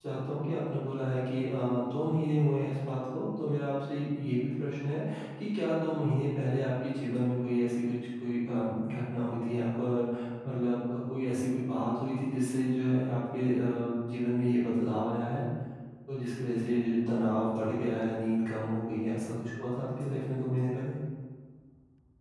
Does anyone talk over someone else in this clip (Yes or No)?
No